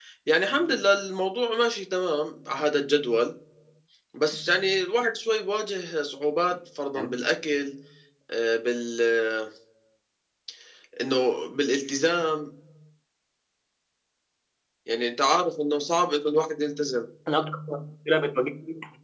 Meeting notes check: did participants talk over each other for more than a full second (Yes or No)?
No